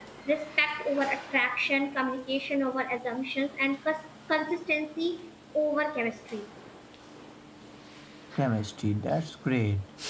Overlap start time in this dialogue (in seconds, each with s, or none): none